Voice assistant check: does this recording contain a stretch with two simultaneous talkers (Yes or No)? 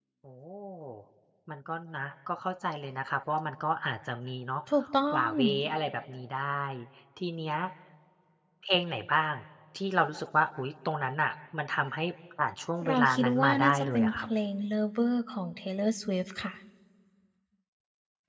Yes